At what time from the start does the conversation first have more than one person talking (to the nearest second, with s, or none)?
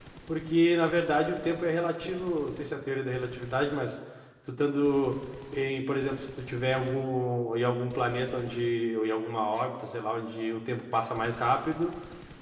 none